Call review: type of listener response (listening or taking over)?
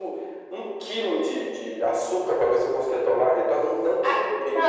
taking over